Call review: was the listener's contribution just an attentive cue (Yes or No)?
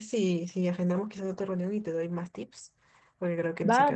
No